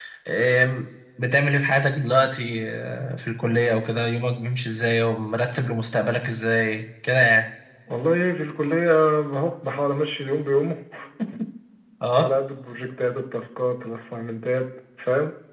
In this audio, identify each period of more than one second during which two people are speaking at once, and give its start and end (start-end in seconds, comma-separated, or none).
none